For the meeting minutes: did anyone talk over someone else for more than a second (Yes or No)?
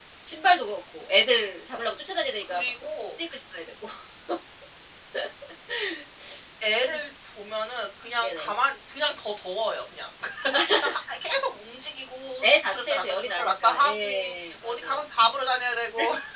Yes